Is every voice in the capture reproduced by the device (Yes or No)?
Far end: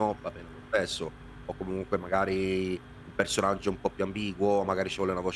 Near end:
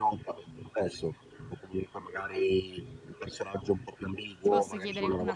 No